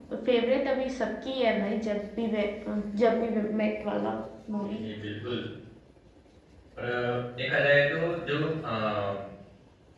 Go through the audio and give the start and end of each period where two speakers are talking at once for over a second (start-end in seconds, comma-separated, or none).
none